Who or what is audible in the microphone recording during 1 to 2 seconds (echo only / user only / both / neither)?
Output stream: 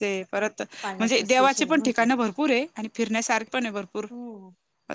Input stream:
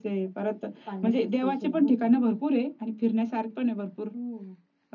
echo only